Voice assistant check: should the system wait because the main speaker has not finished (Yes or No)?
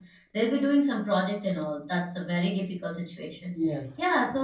Yes